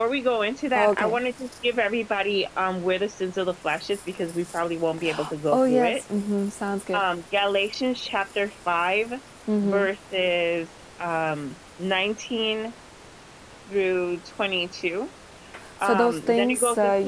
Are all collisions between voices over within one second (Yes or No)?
No